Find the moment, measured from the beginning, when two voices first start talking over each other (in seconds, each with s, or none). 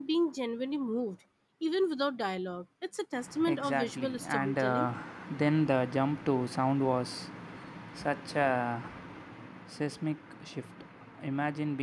3.4 s